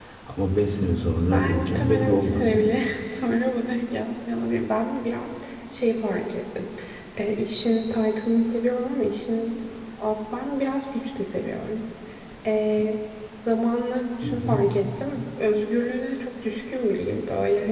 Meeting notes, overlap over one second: present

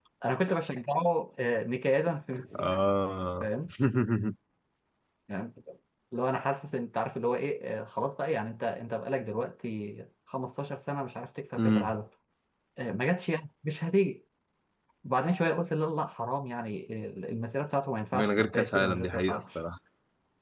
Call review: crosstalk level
present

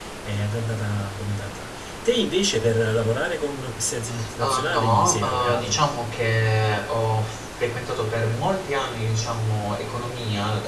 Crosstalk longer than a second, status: present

